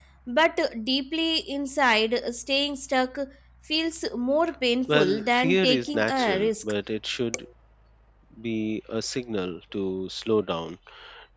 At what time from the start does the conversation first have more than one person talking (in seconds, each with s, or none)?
4.9 s